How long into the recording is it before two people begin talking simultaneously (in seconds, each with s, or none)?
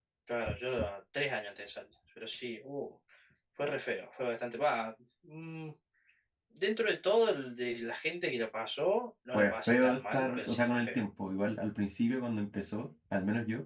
9.3 s